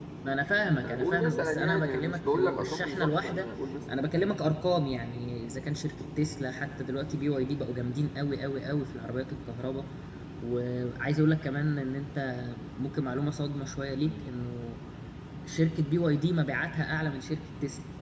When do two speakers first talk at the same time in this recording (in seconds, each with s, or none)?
0.8 s